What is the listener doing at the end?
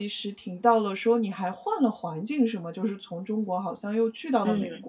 taking over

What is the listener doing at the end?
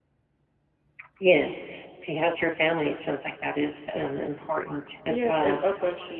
taking over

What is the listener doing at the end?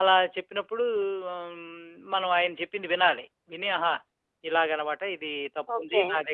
taking over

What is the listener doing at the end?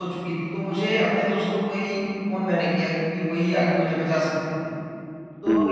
listening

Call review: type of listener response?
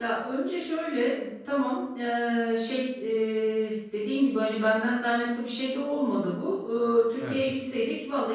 listening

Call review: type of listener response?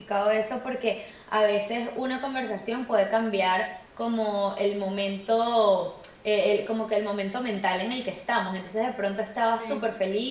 listening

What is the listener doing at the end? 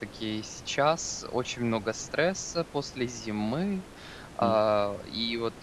listening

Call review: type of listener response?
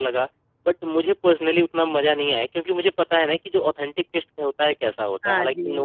taking over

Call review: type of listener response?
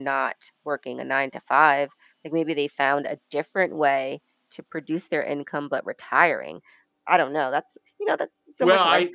taking over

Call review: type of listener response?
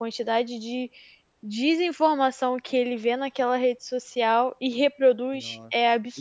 taking over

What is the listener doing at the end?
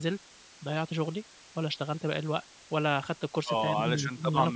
taking over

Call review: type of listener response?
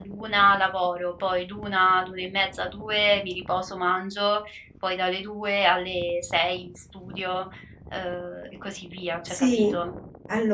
taking over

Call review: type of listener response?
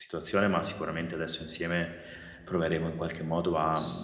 listening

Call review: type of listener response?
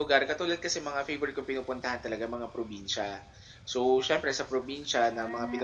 listening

